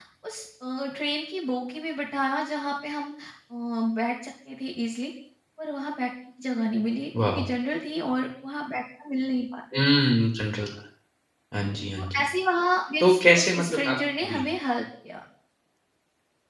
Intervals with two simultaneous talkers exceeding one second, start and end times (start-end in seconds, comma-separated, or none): 13.0-14.4